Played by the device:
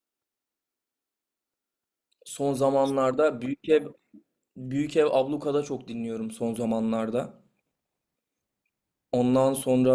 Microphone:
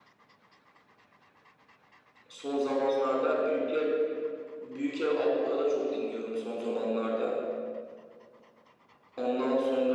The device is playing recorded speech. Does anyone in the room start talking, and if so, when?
none

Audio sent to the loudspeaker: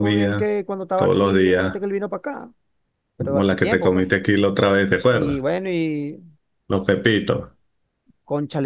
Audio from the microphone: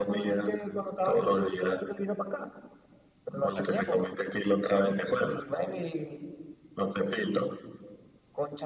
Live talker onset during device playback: none

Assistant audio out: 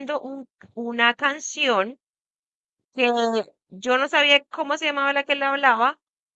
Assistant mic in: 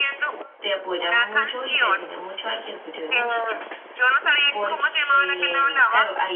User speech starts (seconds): 0.6 s

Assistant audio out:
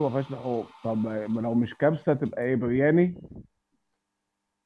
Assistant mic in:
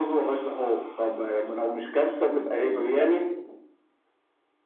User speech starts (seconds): 2.5 s

